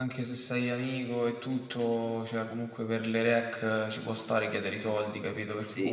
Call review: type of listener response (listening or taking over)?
taking over